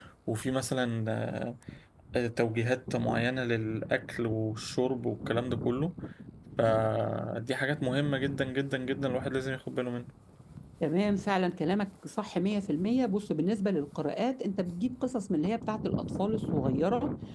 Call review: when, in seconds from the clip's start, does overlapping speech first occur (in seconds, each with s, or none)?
none